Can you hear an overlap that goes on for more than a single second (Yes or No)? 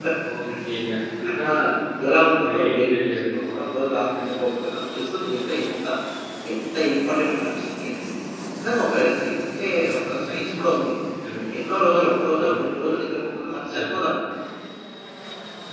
Yes